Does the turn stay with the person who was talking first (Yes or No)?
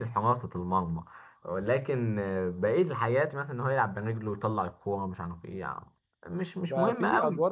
No